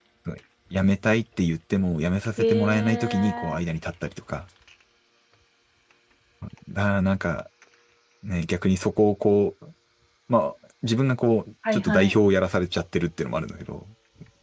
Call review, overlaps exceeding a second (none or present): present